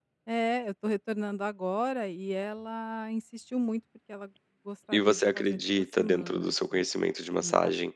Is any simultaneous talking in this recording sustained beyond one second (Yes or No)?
Yes